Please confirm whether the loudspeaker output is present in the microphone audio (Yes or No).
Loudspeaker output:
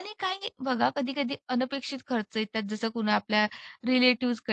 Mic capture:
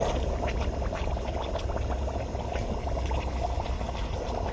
No